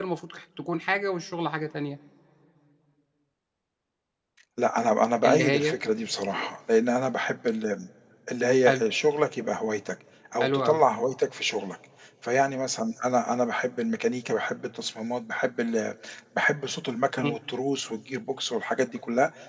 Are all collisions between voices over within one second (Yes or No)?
Yes